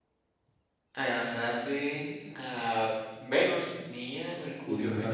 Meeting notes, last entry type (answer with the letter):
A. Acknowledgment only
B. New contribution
B